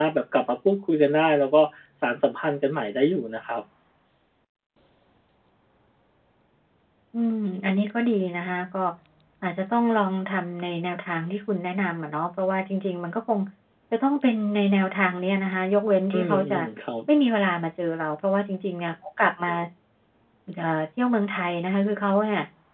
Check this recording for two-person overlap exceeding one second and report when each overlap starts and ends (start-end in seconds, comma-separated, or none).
none